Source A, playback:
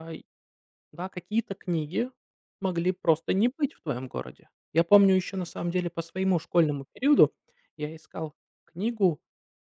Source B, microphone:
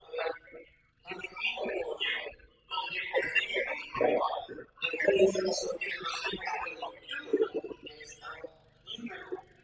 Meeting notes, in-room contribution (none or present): none